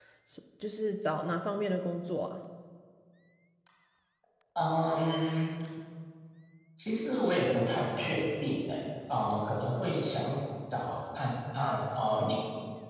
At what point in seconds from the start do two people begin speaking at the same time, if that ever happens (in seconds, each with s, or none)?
none